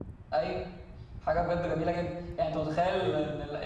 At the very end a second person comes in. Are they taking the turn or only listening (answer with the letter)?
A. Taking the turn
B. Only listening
B